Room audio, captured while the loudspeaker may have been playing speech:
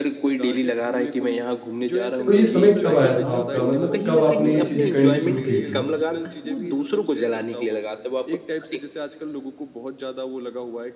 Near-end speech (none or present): present